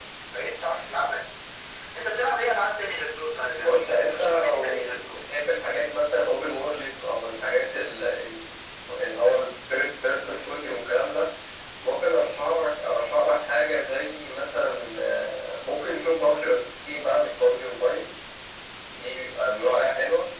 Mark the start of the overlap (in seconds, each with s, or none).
3.6 s